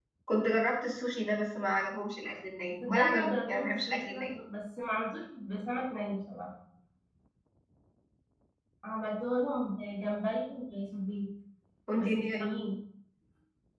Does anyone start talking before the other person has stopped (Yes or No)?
Yes